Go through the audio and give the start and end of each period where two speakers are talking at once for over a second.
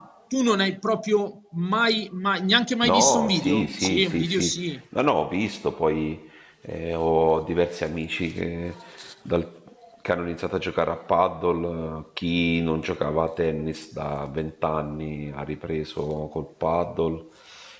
2.8-4.8

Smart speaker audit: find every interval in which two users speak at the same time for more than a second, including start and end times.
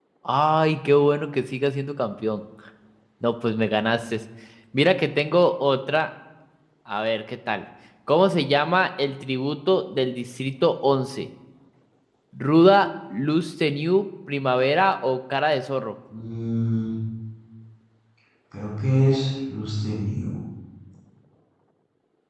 none

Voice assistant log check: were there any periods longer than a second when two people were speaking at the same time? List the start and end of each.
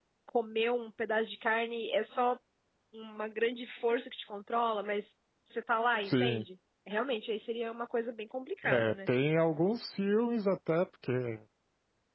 none

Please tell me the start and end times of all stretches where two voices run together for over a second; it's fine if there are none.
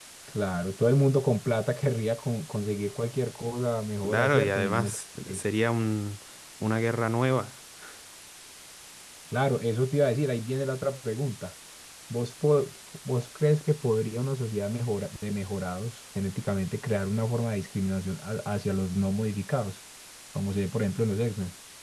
4.0-5.4

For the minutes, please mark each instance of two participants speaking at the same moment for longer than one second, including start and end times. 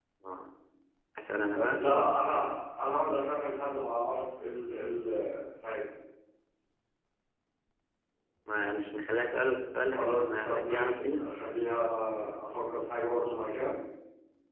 9.9-11.2

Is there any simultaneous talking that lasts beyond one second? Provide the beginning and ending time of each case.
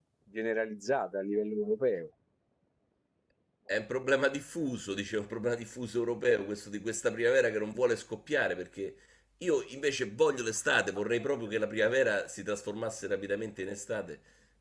none

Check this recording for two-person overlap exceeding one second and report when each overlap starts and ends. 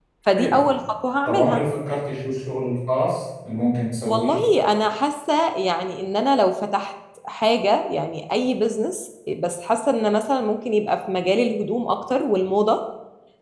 none

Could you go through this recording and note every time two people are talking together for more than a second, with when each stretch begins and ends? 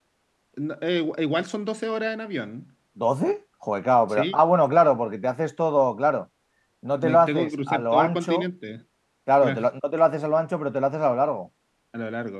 7.0-8.4

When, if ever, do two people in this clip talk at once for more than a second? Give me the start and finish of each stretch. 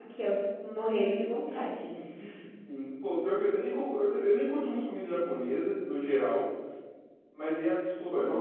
none

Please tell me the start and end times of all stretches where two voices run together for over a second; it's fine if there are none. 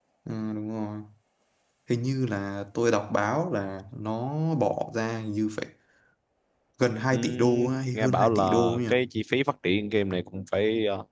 7.1-8.9

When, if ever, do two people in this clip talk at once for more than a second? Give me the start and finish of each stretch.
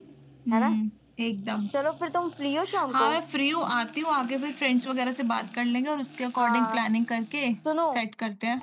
none

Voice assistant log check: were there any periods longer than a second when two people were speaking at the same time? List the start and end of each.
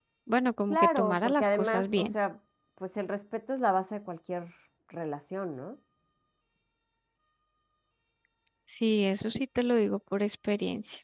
0.7-2.1

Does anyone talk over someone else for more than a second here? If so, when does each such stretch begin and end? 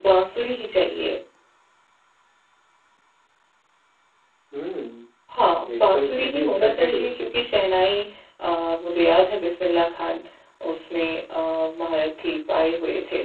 5.7-7.1

